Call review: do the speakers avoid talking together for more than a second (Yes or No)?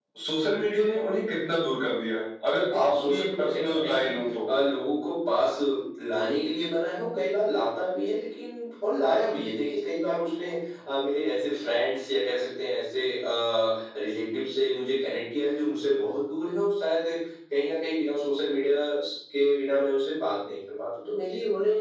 No